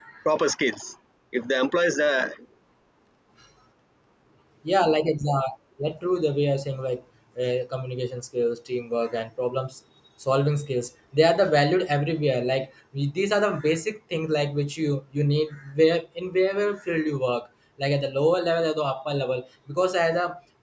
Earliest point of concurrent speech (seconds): none

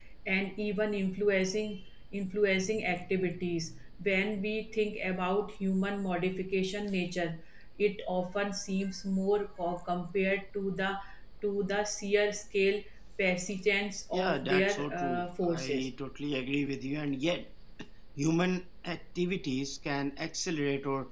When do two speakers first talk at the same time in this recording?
14.1 s

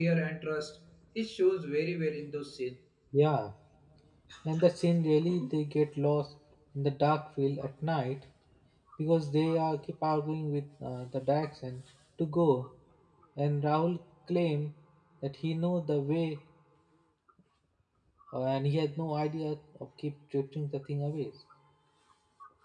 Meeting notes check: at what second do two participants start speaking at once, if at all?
none

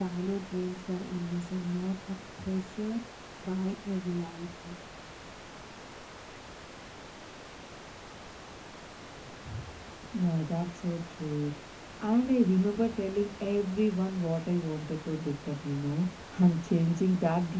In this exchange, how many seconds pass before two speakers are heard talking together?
none

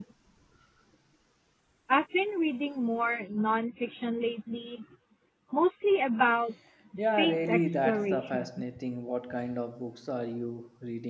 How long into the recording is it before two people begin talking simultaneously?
7.0 s

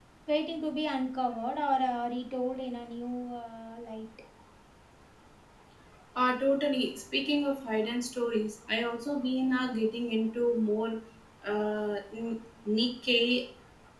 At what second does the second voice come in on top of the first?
none

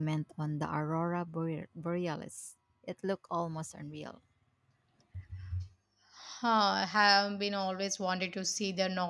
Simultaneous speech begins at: none

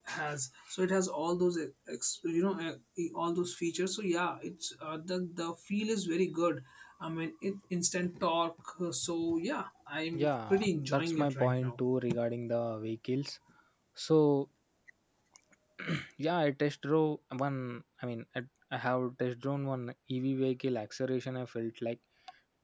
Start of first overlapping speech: 10.1 s

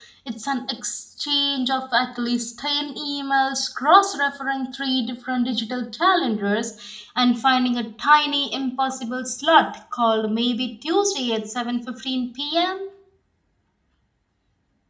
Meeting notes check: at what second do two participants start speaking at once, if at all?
none

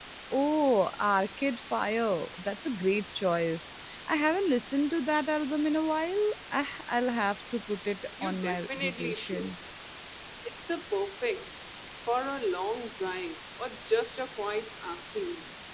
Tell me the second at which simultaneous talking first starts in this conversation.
8.2 s

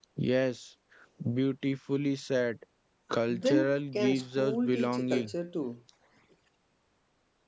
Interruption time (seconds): 3.3 s

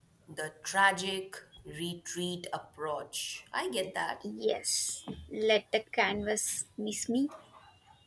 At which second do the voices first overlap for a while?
none

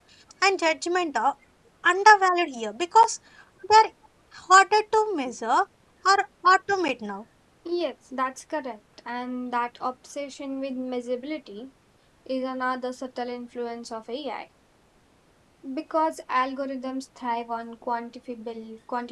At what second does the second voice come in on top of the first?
none

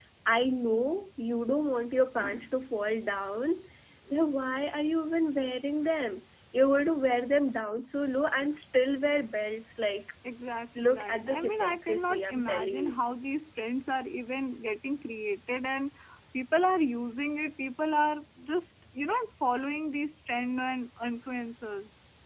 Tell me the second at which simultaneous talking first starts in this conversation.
10.8 s

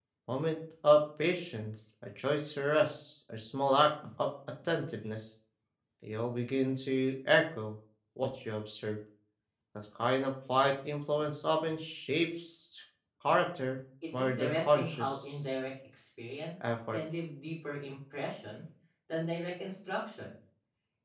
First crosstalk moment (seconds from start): 14.1 s

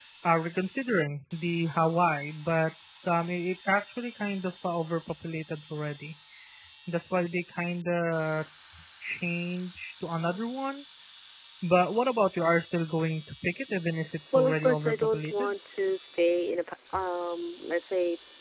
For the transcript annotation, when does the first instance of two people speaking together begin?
14.3 s

